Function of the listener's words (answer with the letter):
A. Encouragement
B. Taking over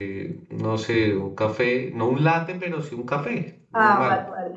B